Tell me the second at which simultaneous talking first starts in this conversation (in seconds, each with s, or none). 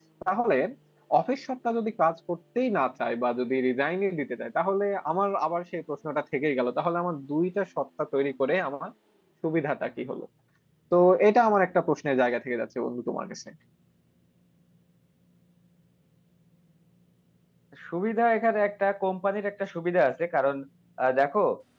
none